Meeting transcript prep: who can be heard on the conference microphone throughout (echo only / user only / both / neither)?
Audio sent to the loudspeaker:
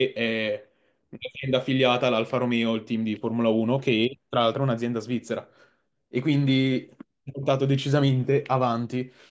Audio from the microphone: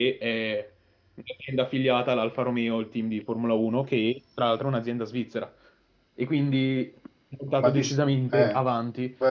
both